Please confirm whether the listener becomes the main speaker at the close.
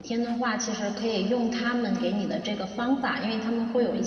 No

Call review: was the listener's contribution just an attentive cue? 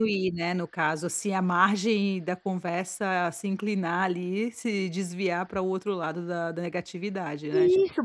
No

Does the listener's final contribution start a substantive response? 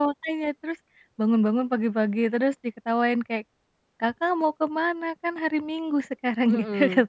Yes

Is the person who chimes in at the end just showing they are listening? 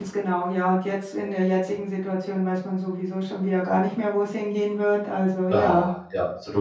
No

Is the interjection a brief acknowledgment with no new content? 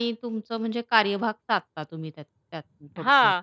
No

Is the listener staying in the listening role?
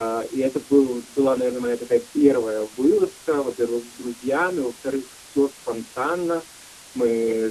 Yes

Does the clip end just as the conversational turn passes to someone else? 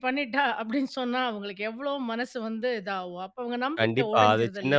Yes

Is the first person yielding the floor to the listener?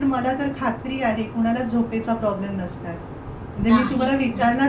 No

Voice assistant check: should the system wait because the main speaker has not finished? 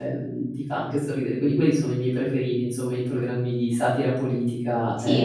No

